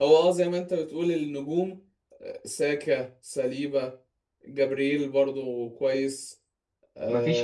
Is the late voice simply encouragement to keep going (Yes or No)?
Yes